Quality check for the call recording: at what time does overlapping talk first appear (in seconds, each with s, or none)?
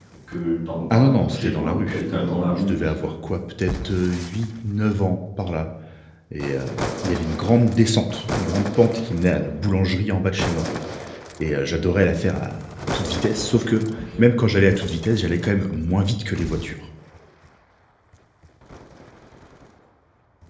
0.9 s